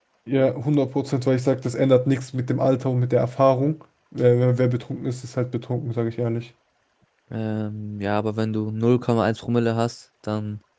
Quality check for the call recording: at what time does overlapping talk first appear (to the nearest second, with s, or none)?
none